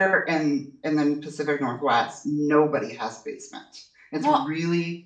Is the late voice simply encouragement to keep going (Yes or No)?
Yes